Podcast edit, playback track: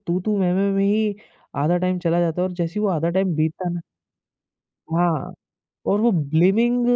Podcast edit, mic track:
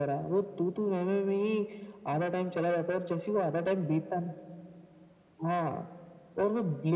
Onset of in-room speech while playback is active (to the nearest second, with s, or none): none